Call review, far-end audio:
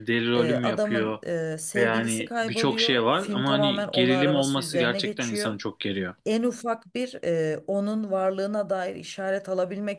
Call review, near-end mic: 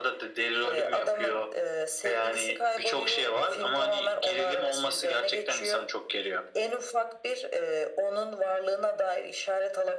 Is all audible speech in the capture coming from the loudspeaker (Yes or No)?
Yes